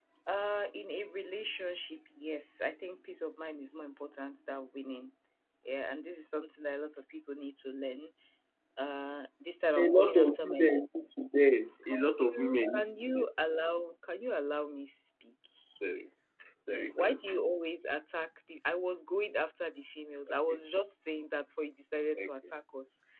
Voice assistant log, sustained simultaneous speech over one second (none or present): present